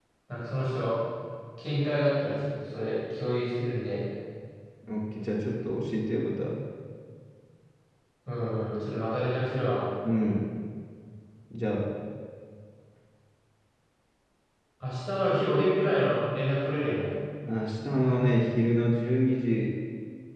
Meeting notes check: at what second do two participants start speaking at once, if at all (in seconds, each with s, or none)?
none